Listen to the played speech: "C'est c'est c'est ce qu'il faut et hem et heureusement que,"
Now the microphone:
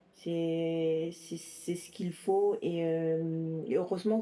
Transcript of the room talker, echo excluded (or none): none